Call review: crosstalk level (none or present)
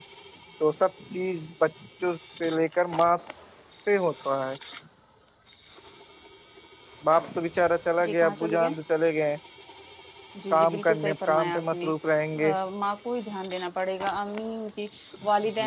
present